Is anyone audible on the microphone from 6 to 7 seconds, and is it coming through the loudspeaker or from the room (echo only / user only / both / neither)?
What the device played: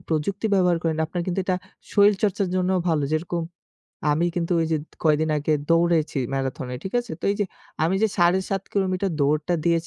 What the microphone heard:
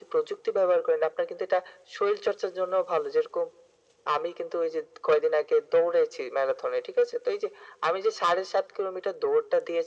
echo only